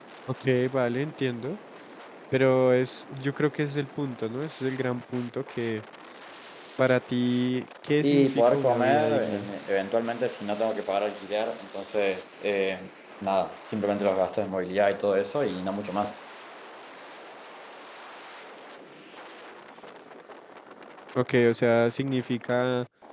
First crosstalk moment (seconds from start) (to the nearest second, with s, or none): 8 s